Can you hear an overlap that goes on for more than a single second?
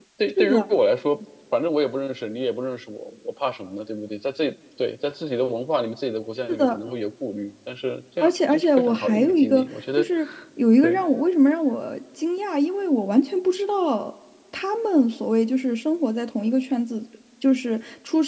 Yes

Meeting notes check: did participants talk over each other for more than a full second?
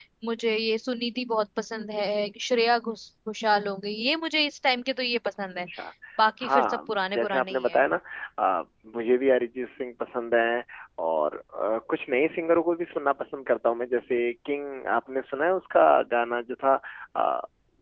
Yes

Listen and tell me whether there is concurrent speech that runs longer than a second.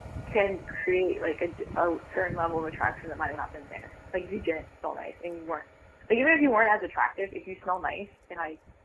No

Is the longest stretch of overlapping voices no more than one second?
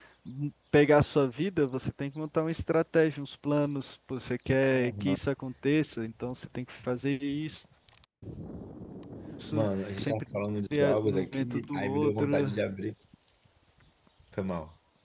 No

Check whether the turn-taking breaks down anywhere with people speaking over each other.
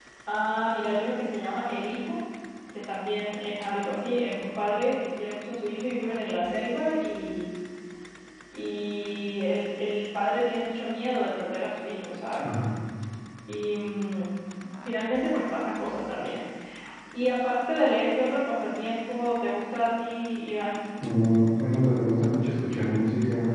No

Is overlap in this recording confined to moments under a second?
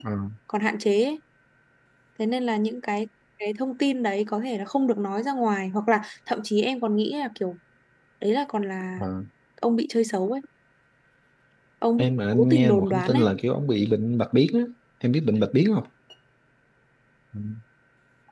No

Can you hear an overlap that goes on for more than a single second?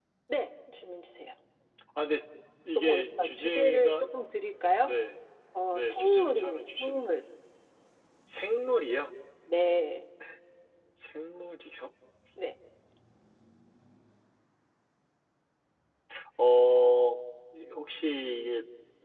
Yes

